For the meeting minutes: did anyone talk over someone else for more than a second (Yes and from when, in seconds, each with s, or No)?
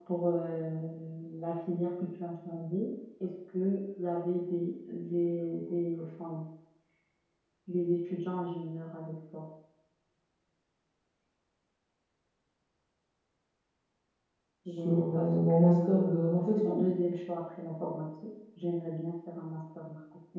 Yes, from 14.7 s